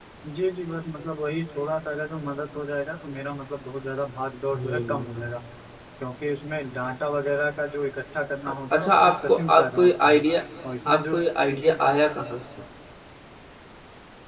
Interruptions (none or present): present